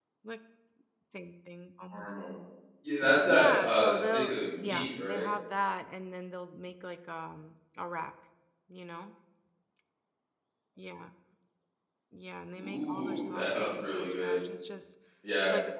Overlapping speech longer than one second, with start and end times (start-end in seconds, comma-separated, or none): 3.2-5.3, 12.6-14.4